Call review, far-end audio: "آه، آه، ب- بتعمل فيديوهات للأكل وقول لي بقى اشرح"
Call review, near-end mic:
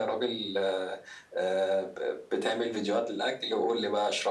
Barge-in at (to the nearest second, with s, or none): none